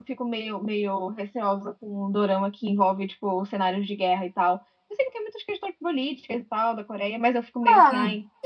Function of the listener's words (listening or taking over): taking over